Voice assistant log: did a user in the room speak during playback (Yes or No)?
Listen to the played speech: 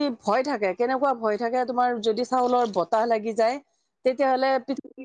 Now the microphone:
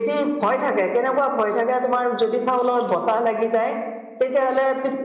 No